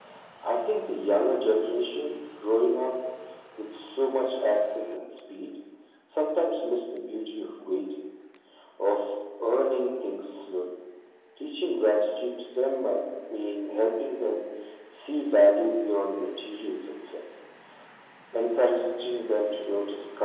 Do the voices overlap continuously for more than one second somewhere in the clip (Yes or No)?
No